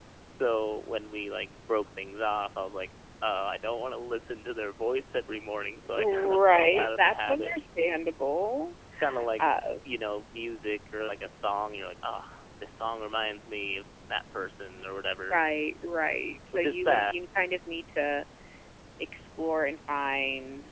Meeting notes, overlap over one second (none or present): present